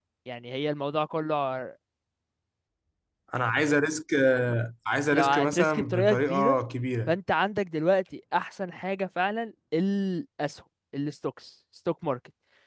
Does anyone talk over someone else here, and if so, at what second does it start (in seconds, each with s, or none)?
5.1 s